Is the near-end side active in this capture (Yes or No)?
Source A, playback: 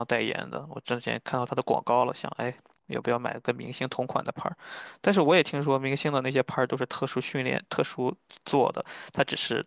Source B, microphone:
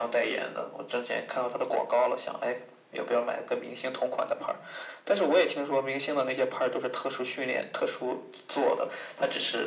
No